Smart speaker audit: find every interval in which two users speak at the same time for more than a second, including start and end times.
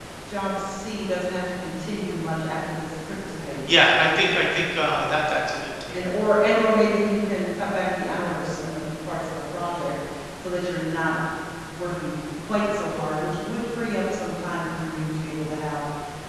none

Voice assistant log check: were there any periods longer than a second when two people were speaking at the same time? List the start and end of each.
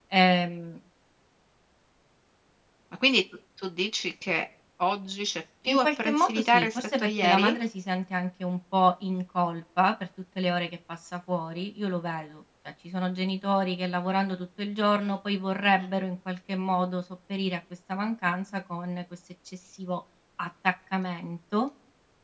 5.7-7.5

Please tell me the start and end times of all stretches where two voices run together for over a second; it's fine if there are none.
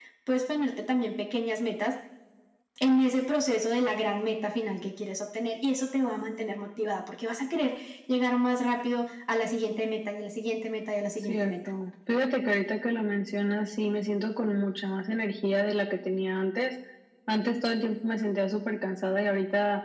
none

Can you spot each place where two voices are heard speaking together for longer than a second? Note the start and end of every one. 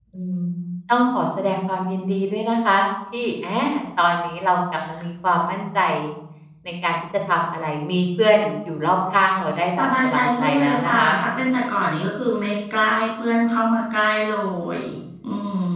9.8-11.1

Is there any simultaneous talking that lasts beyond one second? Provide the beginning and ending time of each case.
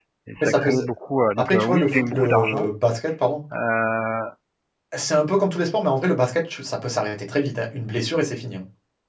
1.4-2.7

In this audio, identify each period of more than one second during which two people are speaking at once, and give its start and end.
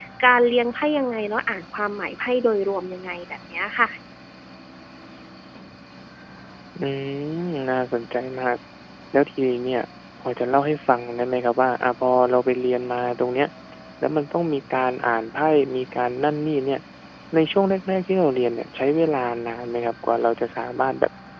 none

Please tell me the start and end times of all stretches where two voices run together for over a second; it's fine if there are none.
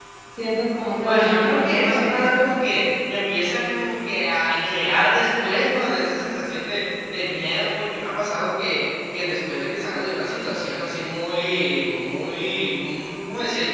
1.0-2.3

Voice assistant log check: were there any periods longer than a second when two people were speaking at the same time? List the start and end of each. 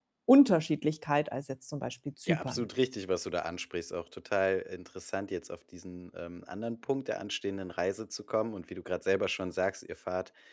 none

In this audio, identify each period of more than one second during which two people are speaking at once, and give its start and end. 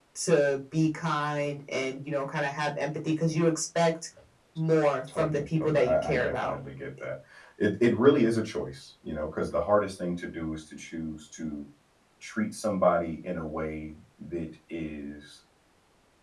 5.1-6.5

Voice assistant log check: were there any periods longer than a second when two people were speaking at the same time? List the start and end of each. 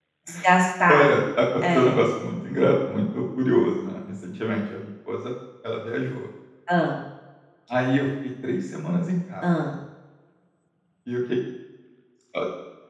none

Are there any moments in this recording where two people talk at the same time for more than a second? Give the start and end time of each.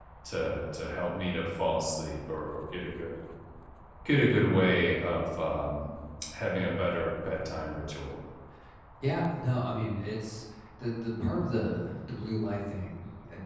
none

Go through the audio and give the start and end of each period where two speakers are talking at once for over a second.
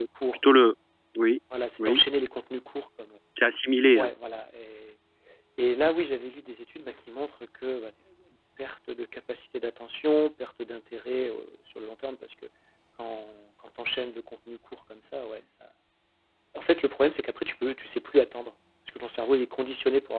none

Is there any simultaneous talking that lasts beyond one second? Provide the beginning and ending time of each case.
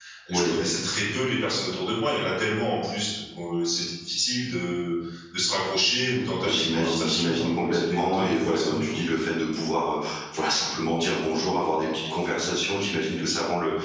6.4-8.9

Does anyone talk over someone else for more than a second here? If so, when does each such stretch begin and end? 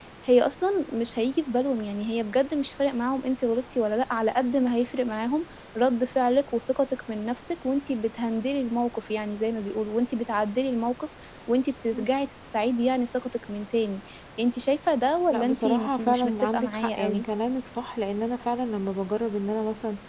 15.3-17.2

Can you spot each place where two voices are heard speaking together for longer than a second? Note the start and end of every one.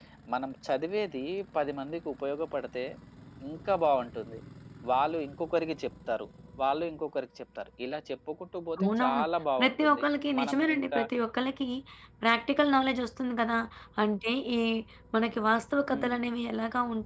9.6-11.0

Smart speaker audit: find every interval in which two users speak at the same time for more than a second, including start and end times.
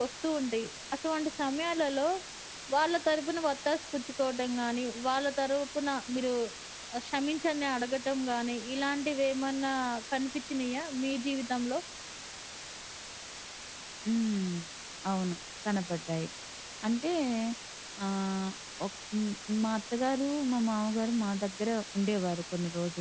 none

